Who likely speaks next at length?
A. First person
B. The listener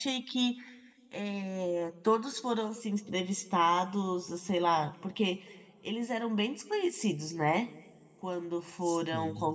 A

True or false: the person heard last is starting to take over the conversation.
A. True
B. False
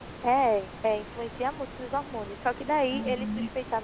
B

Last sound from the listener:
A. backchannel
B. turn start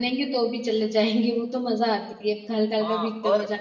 B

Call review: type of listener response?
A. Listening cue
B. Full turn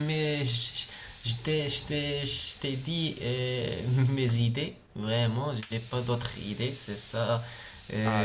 B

